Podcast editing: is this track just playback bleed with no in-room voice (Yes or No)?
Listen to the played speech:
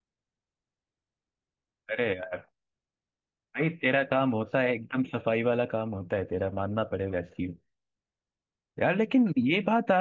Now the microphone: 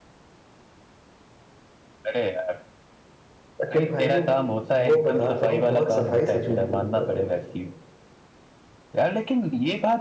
No